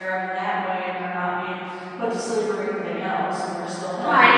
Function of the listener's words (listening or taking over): taking over